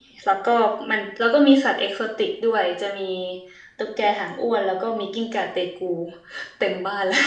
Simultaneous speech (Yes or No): No